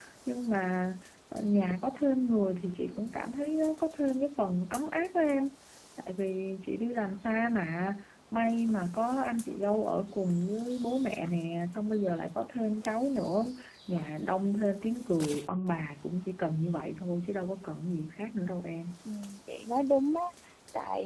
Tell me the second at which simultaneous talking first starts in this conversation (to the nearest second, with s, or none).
none